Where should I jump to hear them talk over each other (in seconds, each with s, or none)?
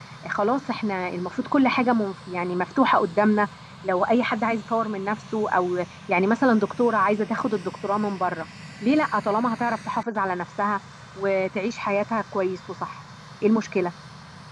none